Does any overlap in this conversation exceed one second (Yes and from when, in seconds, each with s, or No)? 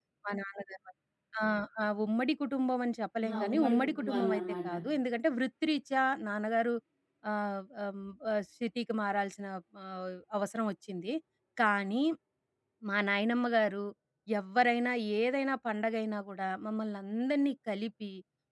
Yes, from 3.2 s